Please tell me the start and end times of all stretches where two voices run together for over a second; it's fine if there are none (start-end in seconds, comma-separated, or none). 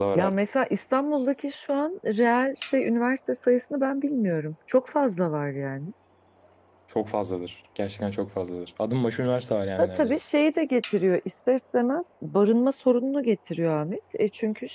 none